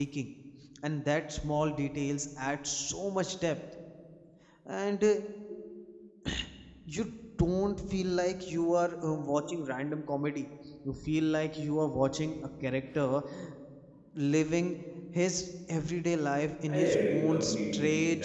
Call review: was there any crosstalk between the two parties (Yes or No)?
Yes